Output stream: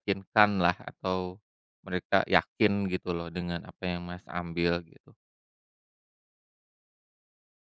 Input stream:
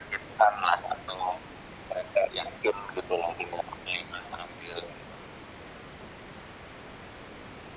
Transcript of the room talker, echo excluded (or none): none